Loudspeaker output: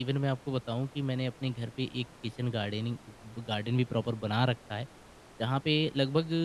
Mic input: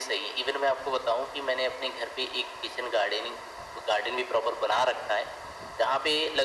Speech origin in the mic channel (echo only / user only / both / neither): echo only